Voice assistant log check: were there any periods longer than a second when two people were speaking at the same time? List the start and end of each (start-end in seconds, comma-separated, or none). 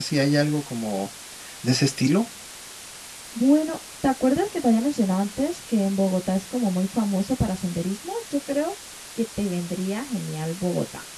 none